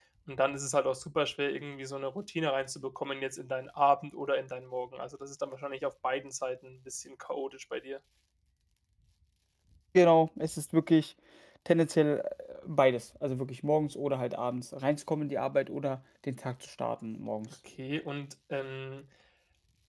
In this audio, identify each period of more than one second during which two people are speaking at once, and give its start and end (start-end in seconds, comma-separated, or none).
none